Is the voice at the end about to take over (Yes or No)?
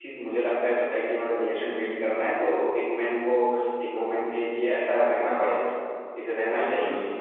Yes